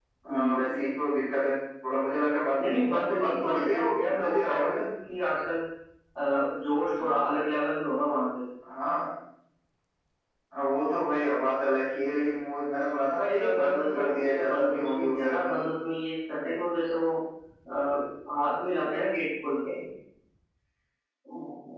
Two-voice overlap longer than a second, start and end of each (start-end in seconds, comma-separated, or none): 2.6-4.8, 13.2-15.6